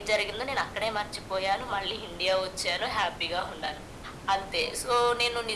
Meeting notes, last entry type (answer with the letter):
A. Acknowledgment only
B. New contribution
A